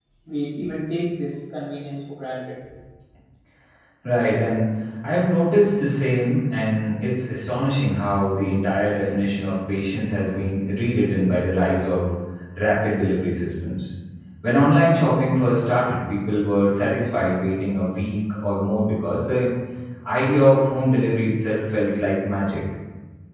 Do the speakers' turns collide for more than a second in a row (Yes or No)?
No